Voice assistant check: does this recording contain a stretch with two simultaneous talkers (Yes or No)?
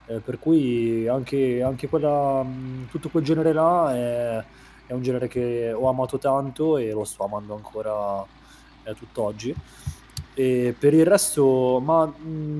No